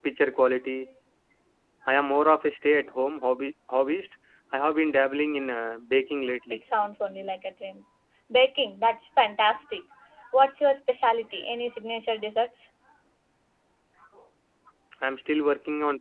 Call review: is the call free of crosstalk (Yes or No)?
Yes